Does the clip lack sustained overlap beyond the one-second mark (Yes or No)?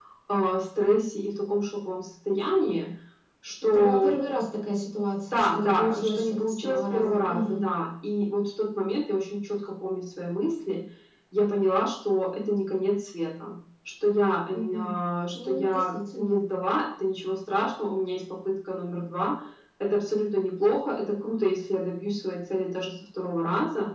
No